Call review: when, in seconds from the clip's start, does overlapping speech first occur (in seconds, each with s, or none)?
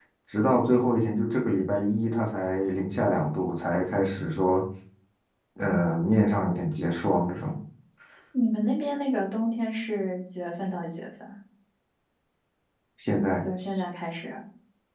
none